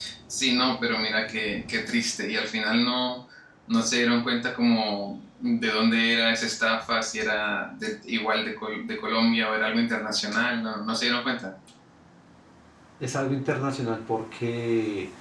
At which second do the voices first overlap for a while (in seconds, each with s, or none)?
none